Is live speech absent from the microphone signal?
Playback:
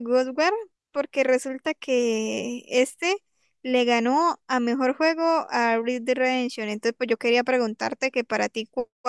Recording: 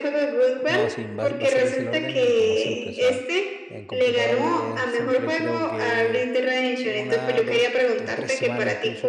No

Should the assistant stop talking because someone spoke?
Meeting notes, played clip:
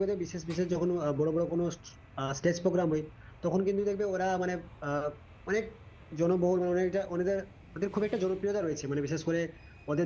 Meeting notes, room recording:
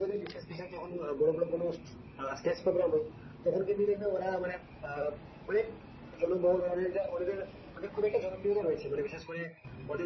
No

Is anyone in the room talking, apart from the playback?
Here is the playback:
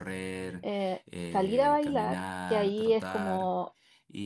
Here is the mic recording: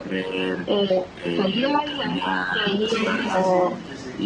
Yes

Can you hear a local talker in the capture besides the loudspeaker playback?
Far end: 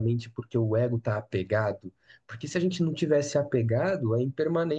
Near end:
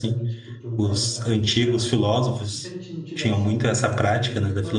Yes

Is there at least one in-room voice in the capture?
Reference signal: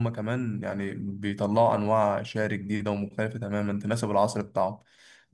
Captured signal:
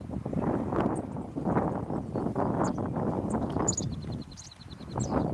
No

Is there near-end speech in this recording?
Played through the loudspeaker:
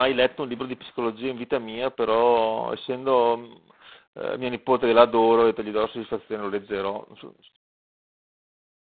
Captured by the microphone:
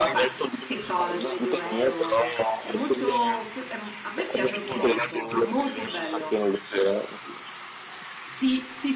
Yes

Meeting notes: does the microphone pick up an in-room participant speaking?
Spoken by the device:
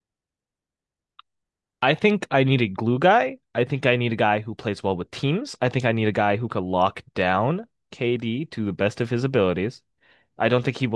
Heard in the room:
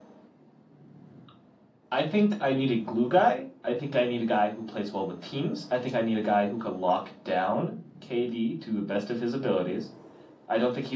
No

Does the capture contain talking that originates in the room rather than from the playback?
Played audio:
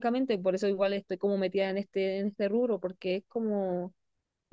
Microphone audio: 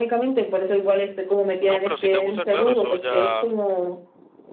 Yes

